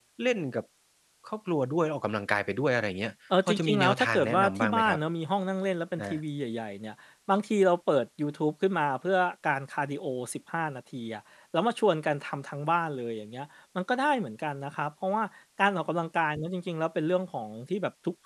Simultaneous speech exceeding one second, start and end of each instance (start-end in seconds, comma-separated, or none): 3.5-5.0